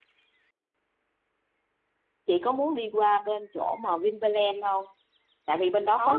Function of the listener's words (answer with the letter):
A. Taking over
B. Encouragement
B